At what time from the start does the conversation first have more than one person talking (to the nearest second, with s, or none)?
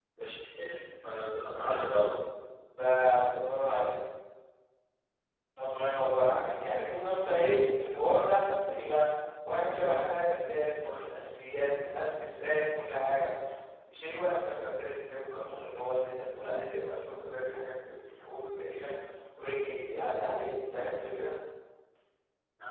none